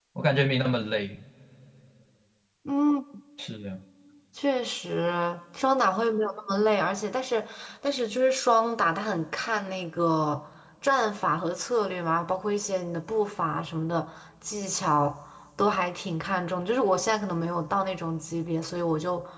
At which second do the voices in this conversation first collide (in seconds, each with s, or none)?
none